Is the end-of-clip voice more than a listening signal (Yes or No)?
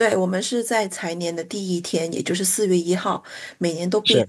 No